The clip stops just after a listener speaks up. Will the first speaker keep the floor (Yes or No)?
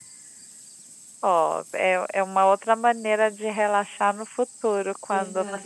No